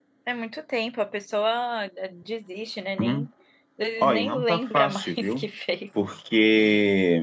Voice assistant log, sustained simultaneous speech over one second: present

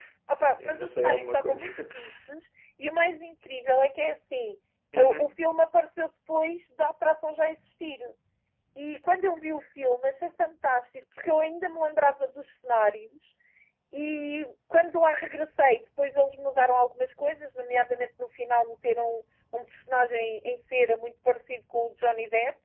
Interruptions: present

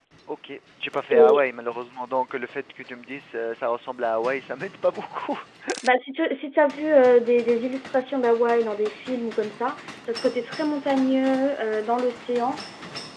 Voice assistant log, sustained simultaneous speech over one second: none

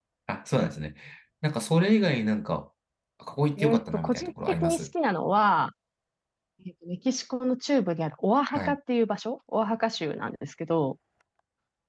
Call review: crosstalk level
present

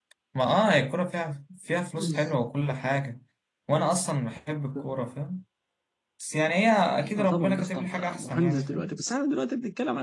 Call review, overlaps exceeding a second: present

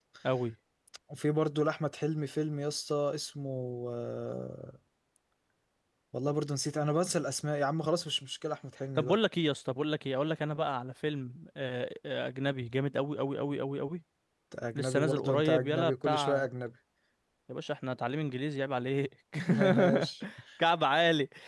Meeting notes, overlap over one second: present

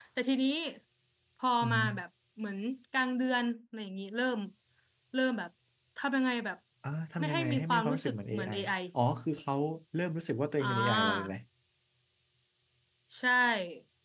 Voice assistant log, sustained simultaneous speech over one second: present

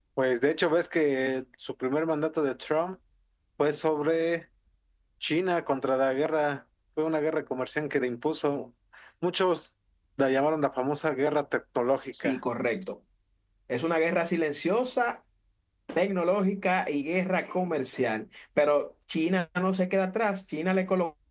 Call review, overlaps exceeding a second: none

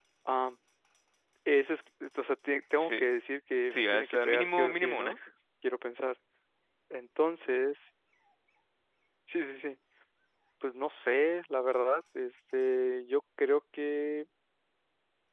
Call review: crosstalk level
present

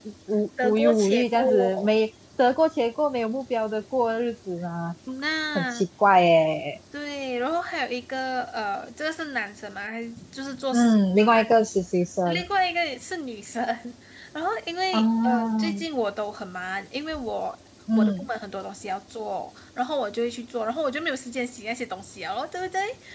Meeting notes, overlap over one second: present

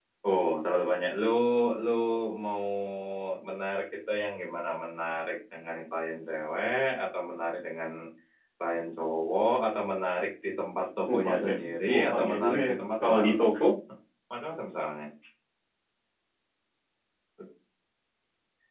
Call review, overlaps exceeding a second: present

